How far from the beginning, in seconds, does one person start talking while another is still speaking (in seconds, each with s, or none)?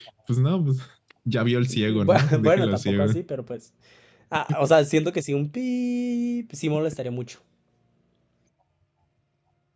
1.9 s